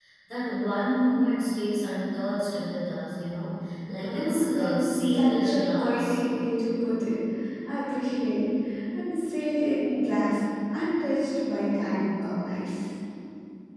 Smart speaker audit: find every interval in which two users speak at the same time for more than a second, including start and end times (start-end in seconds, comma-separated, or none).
4.0-6.2